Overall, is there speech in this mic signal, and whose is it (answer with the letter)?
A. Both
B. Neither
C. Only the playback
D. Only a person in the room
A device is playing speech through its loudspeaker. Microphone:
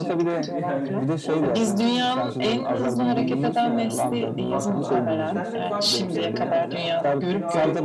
A